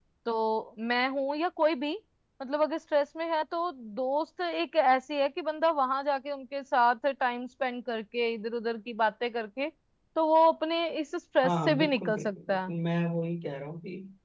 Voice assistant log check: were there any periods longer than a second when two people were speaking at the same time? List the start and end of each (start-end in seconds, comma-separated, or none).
11.4-12.7